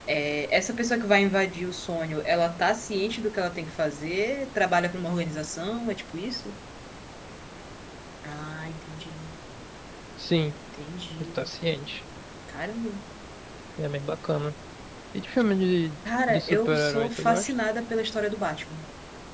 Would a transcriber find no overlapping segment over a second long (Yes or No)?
No